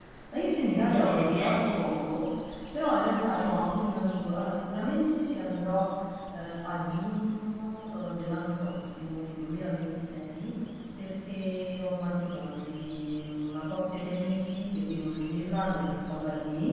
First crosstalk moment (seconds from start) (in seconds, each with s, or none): 0.6 s